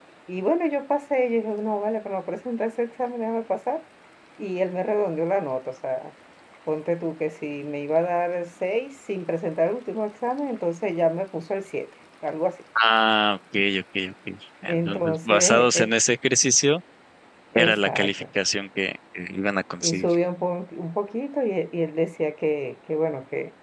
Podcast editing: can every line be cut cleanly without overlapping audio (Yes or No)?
No